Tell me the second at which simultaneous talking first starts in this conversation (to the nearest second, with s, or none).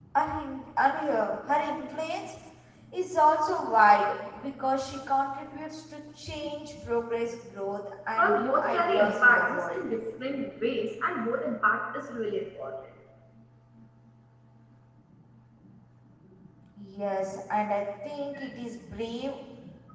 8 s